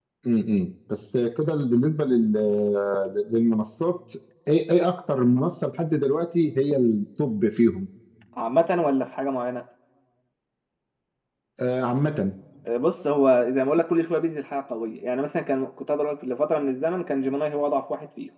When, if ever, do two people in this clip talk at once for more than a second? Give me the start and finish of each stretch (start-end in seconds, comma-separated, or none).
none